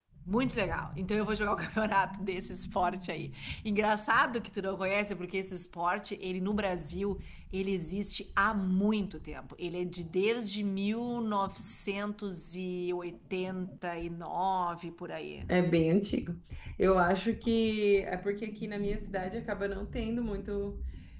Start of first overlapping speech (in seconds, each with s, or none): none